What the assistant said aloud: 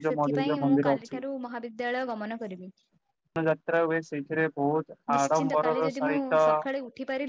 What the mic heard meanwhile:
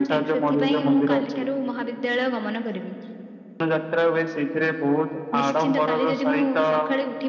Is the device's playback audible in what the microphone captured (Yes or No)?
Yes